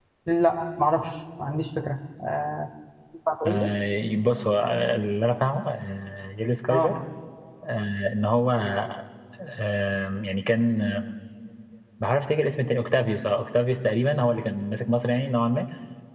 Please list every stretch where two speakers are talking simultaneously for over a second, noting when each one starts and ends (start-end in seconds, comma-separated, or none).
none